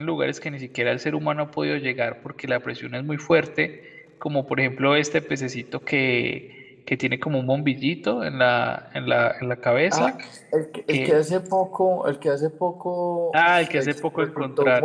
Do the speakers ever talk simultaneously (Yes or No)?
Yes